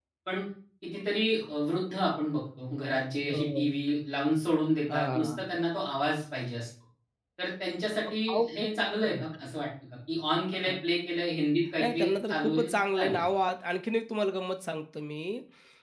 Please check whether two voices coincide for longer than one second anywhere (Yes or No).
Yes